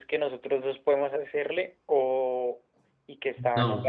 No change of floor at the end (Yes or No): Yes